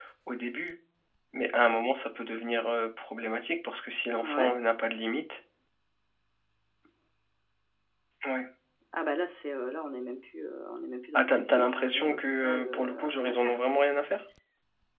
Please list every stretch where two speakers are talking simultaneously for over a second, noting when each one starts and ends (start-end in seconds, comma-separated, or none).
11.1-13.6